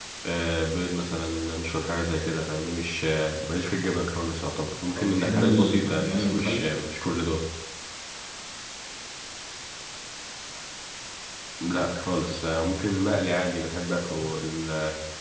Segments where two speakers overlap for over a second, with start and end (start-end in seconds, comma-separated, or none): 5.0-6.6